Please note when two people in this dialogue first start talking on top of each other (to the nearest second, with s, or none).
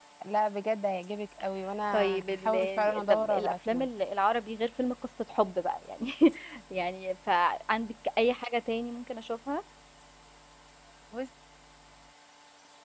2 s